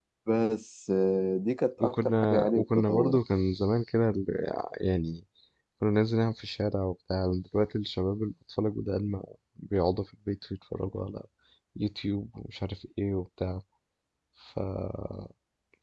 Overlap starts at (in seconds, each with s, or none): 1.8 s